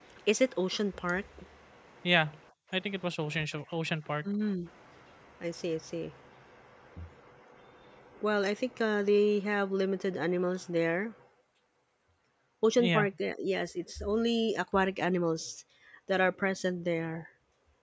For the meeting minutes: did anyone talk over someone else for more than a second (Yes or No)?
No